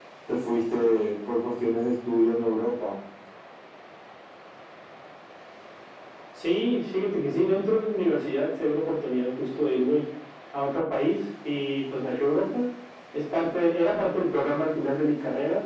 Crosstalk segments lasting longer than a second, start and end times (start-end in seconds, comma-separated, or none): none